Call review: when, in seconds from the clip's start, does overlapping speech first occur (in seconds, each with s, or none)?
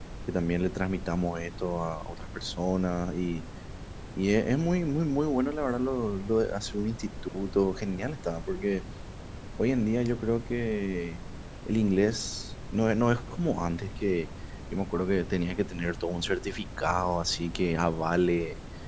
none